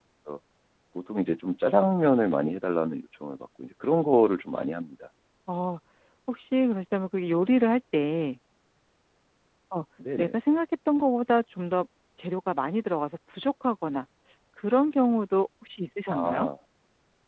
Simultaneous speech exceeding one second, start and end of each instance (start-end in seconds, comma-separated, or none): none